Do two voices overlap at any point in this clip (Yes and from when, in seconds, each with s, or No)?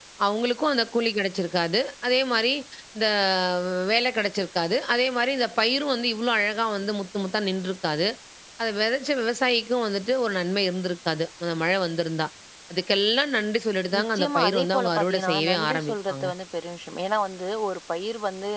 Yes, from 13.9 s